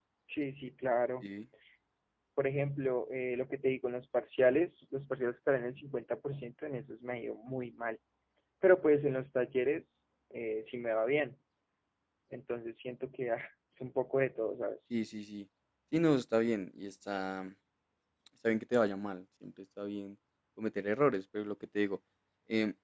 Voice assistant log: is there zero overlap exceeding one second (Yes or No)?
Yes